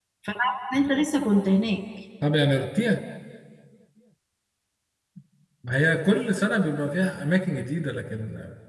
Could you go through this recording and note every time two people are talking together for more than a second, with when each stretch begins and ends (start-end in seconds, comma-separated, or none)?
none